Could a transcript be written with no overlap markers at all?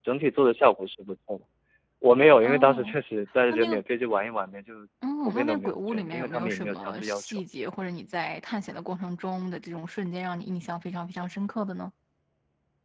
No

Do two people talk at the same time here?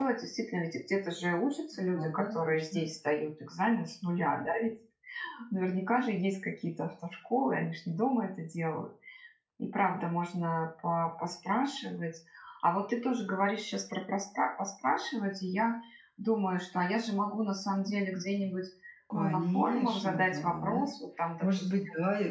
Yes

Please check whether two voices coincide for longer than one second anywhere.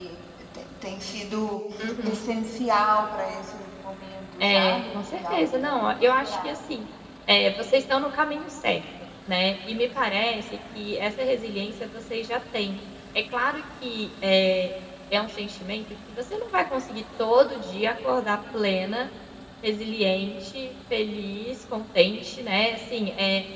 Yes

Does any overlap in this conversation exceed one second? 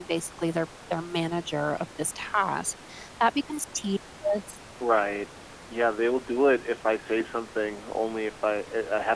No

